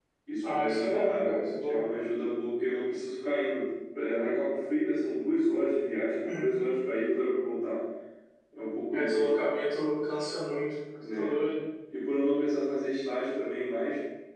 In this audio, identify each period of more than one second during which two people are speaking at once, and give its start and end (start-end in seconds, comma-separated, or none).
0.5-1.8